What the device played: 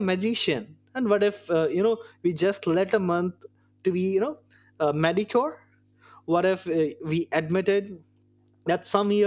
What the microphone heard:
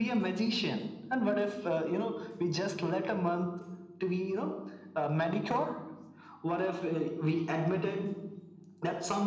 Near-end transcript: none

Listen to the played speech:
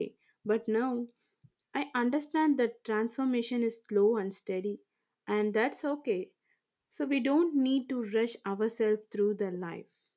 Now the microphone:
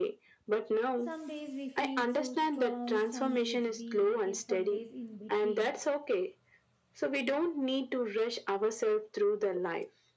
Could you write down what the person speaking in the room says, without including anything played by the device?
Some days we feel so strong, some days weak, and some days in between.

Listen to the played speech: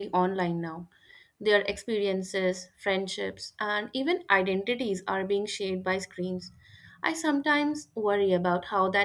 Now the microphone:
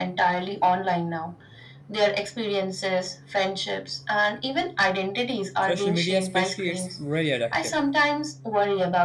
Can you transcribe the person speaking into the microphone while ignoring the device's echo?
Social media, especially, it's really addictive

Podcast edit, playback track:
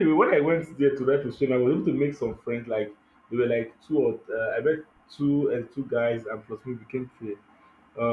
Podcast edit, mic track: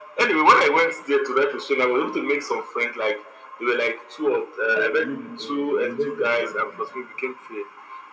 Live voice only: uh, uni- uh, University of Ibadan.

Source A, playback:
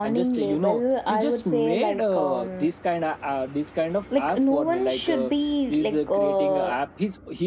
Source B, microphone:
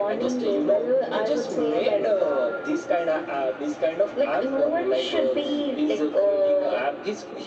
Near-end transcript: none

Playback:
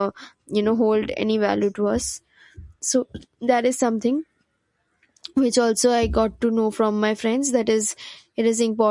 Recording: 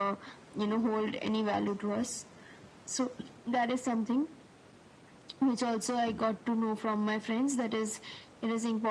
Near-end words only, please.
none

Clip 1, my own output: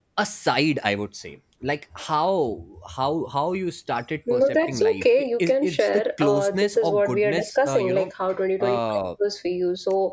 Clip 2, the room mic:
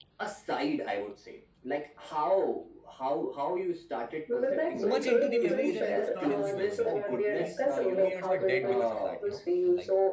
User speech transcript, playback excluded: it's so much into the memory that it's not in the memory it, it feels like two years are dead because of that you know And like

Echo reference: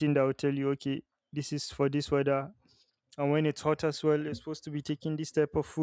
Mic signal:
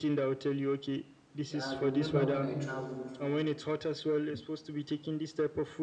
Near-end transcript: I could remember when I traveled

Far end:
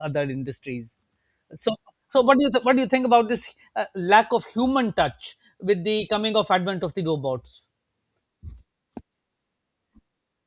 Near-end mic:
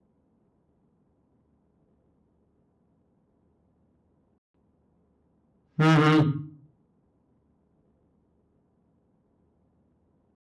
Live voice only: Mhm.

